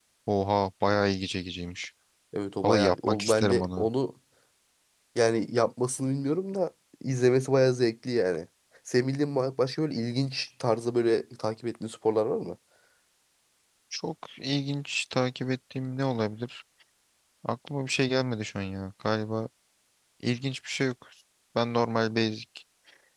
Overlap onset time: 3 s

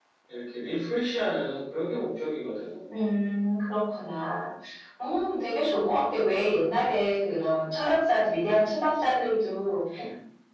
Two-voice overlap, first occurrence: none

